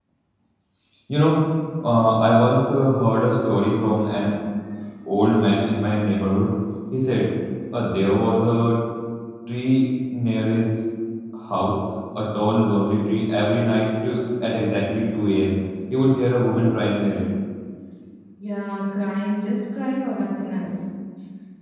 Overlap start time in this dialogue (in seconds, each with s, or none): none